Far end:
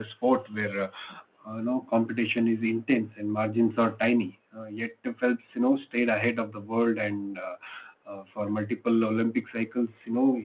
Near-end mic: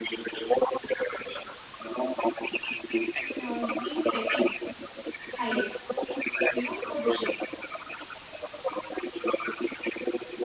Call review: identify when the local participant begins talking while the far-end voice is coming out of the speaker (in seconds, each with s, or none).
3.4 s